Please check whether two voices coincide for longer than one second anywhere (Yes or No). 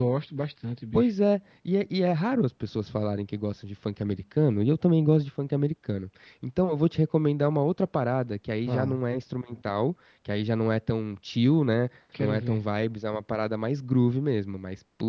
No